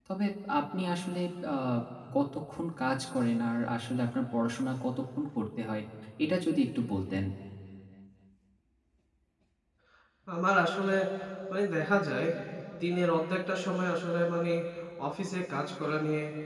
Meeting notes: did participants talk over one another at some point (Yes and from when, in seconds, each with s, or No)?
No